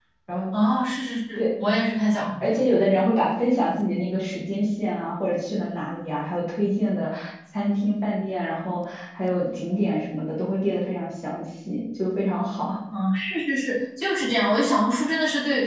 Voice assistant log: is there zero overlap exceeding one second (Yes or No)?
Yes